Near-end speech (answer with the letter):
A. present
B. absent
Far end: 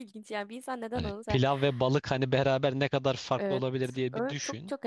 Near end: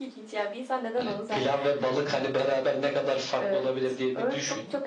B